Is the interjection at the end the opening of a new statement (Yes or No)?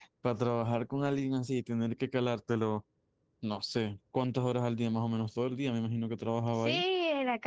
Yes